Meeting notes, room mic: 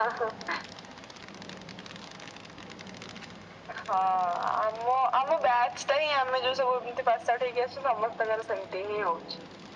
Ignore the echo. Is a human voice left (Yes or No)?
No